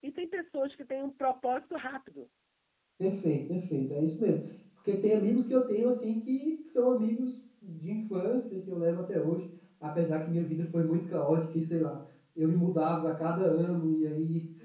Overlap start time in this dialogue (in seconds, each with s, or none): none